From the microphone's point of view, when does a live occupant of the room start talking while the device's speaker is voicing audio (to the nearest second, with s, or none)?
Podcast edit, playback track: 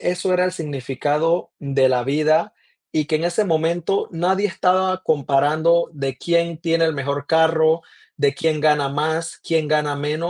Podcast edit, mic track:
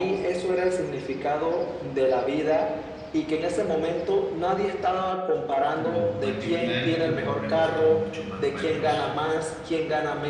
6 s